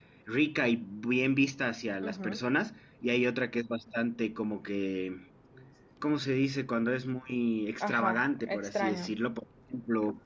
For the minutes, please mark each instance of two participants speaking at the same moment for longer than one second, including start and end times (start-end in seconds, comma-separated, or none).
7.8-9.1